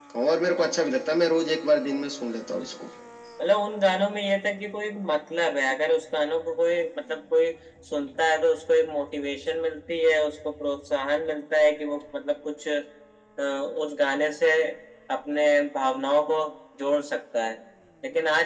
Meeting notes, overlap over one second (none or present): none